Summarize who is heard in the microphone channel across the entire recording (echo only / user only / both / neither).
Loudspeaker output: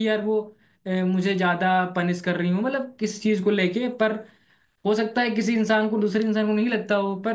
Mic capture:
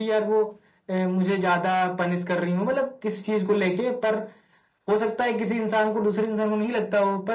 echo only